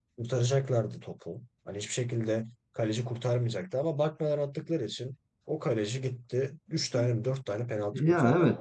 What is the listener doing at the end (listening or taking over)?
taking over